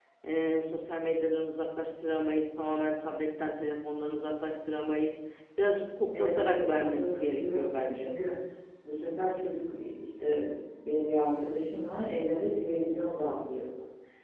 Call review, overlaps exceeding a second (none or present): present